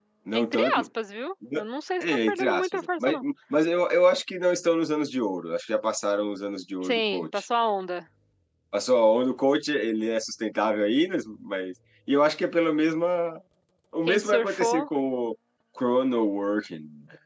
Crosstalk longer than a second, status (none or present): present